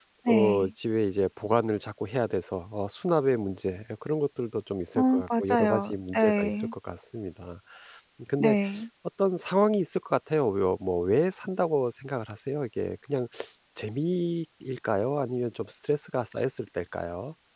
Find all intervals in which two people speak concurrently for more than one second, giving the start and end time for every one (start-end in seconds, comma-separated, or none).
5.0-6.7